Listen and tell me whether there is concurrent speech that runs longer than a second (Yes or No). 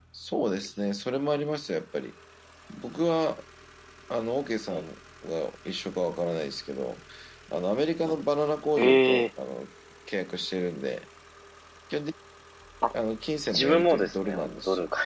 Yes